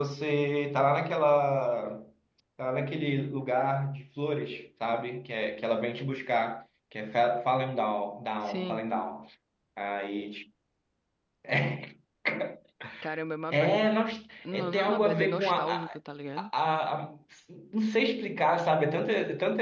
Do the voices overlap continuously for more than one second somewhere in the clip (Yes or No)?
Yes